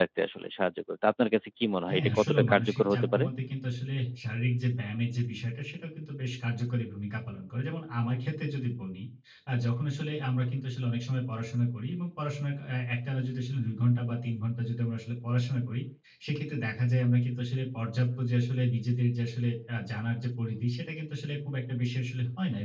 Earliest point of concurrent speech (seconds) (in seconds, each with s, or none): 1.9 s